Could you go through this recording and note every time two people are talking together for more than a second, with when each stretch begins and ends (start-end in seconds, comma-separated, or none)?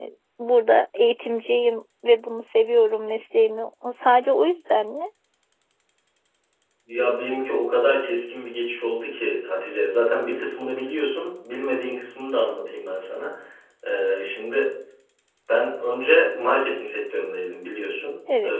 none